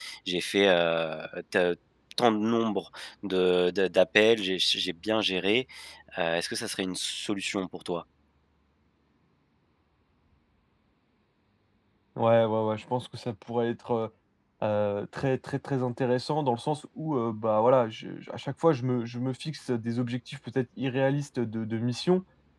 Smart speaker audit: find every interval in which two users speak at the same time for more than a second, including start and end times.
none

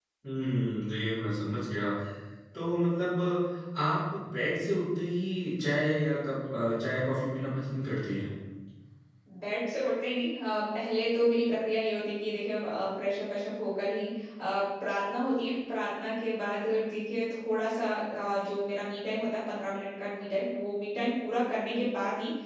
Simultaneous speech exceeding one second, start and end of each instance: none

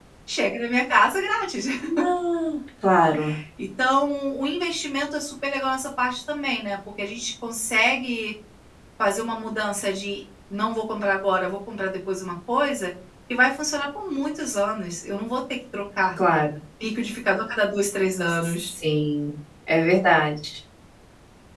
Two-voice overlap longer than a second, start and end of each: none

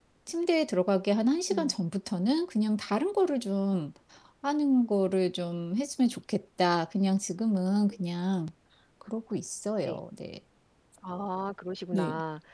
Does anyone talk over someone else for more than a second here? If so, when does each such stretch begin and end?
none

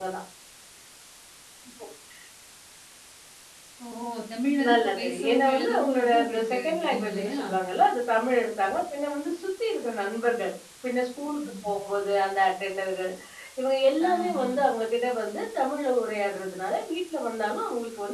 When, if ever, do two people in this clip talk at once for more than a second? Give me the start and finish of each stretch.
4.7-7.4

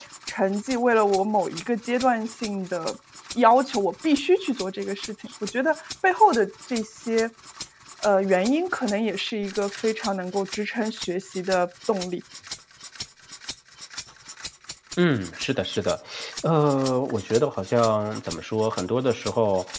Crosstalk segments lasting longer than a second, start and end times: none

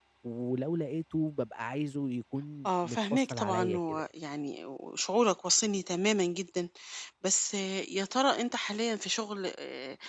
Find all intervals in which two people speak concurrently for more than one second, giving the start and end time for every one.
2.7-4.0

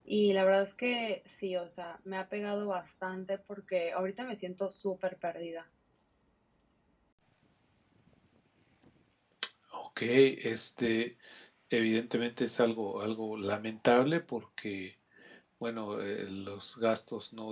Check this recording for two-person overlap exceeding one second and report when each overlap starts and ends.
none

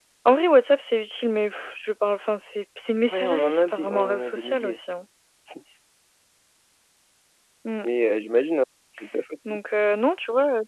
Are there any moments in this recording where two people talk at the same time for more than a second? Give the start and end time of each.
3.1-4.8

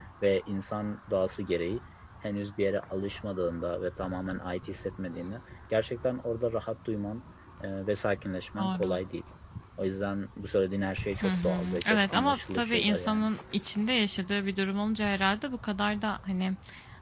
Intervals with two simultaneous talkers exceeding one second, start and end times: 11.2-13.3

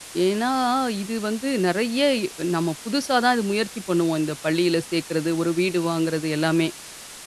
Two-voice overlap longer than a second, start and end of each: none

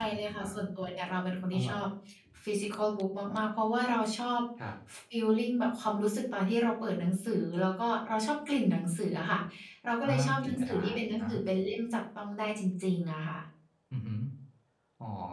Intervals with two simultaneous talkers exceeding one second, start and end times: 10.0-11.3

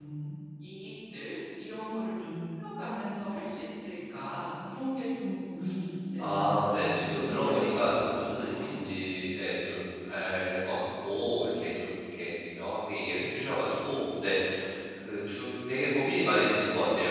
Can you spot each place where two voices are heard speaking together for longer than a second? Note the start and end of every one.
6.2-8.7

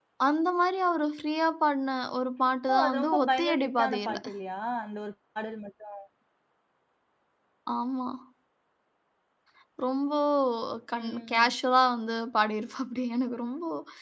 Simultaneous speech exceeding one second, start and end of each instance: 2.7-4.2

